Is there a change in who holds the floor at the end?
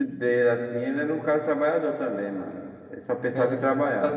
Yes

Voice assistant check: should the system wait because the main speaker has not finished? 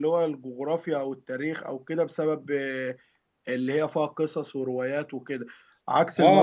No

